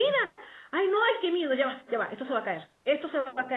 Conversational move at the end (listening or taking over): listening